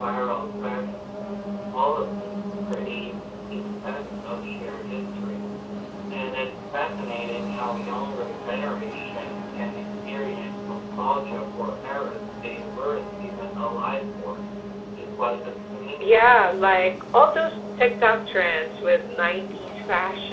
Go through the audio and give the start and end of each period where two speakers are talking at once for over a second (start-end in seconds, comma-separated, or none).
16.0-17.6